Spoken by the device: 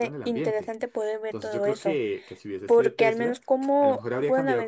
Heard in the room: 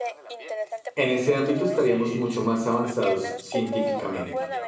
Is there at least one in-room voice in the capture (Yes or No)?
Yes